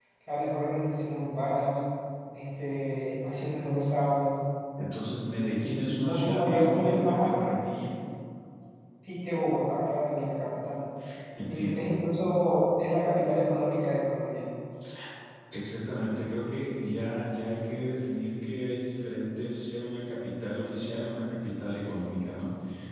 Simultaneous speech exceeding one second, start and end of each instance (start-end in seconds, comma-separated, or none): 5.6-7.3